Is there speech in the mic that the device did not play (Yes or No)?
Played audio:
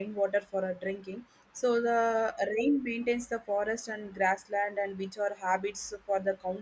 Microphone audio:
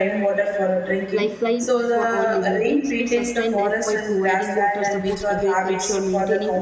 Yes